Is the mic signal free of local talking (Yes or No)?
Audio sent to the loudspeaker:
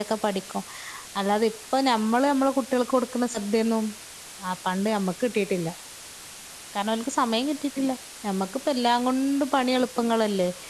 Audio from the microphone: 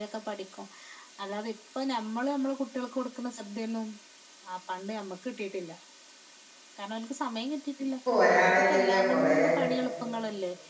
No